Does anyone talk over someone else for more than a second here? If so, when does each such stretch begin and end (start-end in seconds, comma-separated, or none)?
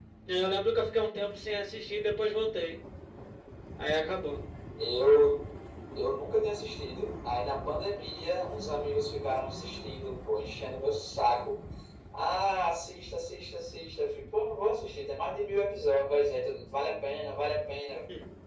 none